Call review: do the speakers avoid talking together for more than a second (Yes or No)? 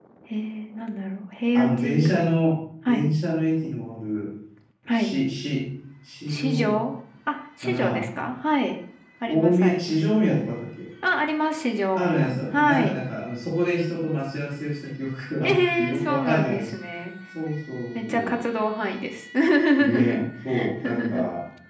No